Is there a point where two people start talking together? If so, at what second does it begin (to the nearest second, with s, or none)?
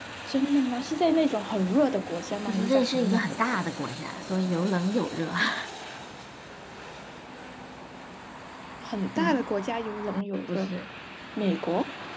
2 s